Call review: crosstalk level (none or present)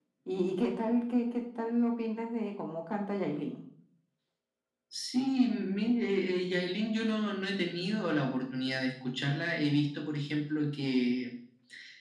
none